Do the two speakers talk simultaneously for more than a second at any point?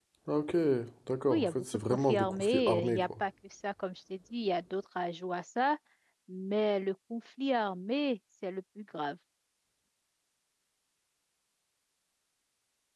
Yes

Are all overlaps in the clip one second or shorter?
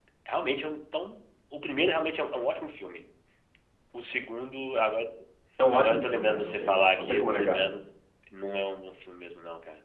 No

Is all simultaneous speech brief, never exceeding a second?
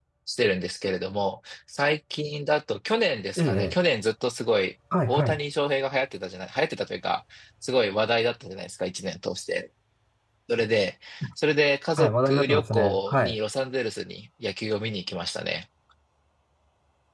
No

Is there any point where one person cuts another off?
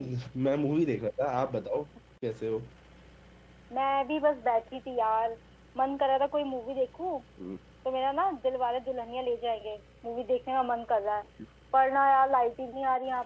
No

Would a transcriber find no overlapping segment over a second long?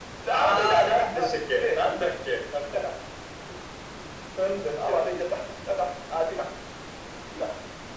No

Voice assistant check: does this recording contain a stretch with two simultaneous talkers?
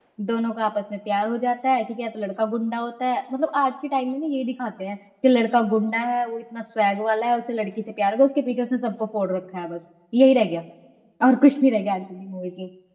No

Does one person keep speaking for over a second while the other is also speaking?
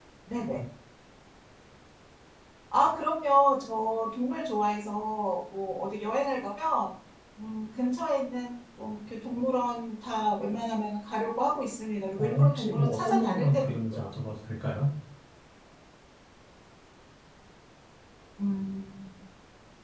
Yes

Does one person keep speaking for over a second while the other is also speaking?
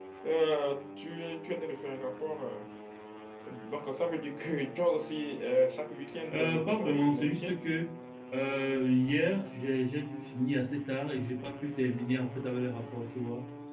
Yes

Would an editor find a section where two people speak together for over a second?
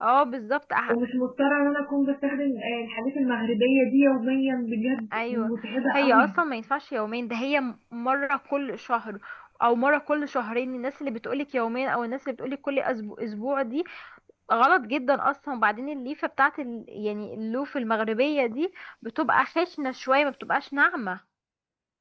No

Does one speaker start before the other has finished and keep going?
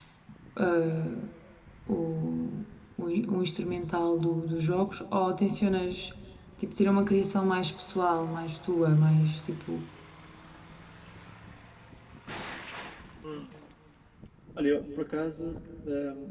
No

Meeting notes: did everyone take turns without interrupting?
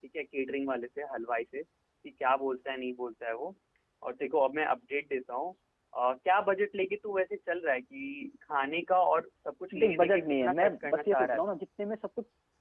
No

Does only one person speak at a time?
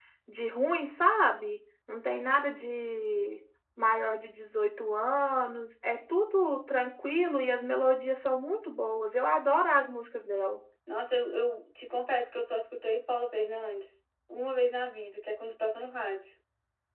Yes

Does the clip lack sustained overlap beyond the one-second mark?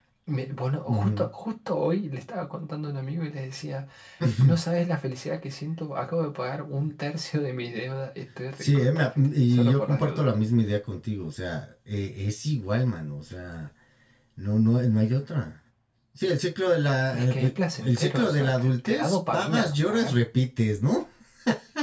No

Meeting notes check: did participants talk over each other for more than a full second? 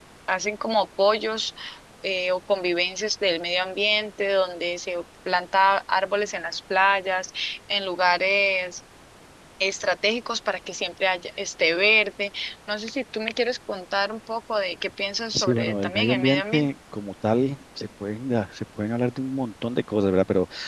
Yes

